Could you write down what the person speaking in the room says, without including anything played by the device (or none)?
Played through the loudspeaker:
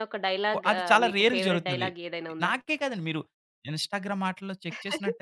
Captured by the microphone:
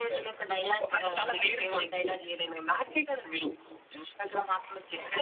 none